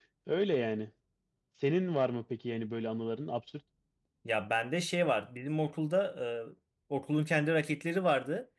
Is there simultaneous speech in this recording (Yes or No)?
No